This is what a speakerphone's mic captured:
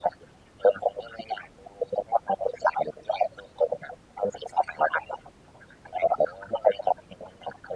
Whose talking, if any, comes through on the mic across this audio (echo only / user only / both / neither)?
echo only